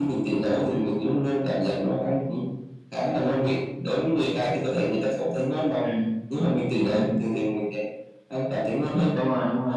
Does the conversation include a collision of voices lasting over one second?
No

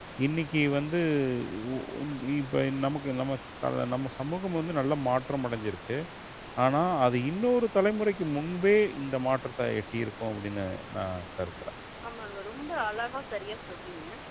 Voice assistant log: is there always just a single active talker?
Yes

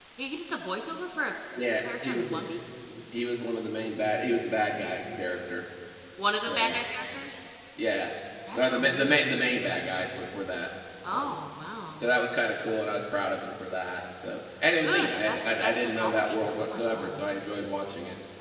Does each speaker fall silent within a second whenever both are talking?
No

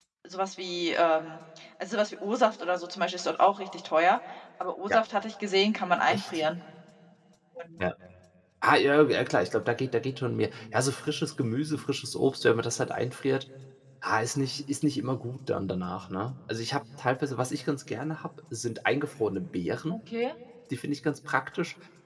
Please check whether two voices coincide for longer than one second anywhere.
No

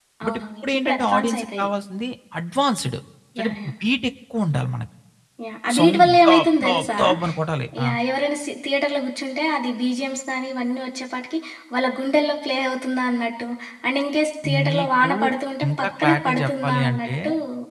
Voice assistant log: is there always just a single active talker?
No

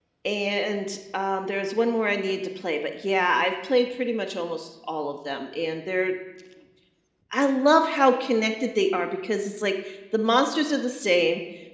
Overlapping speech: No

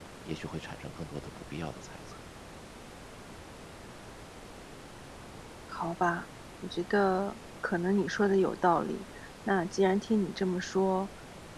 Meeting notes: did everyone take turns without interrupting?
Yes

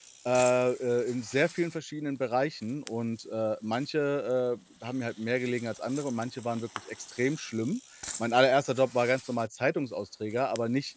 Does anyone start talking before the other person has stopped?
No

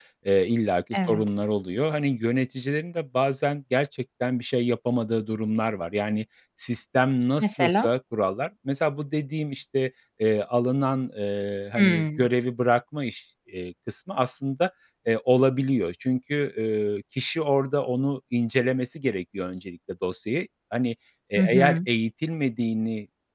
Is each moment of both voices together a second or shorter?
Yes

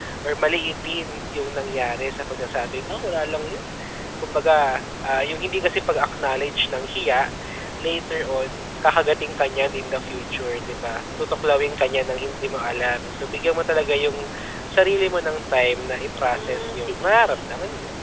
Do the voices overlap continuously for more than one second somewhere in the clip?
Yes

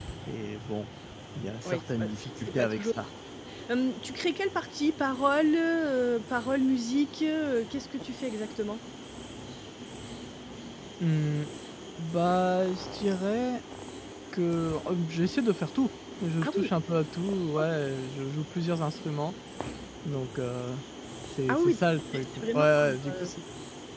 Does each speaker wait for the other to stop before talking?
No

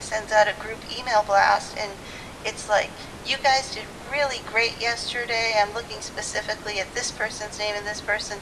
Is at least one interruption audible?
No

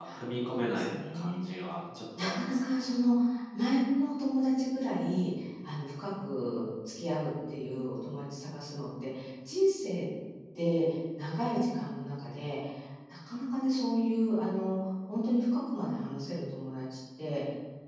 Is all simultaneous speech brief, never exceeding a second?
No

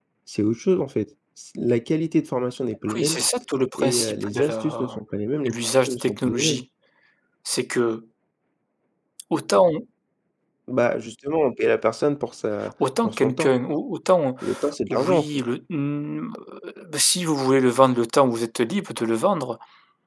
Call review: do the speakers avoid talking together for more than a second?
No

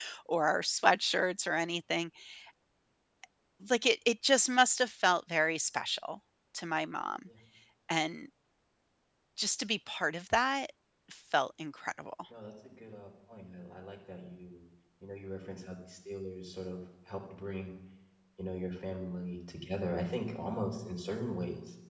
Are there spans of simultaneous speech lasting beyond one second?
No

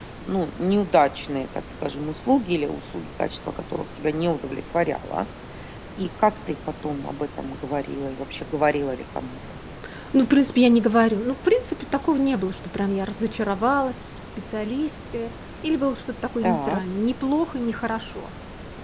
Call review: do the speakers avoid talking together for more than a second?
Yes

